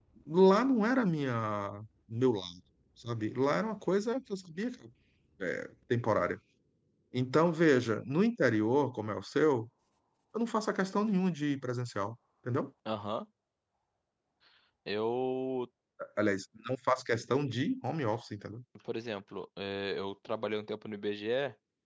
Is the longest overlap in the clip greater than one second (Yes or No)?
No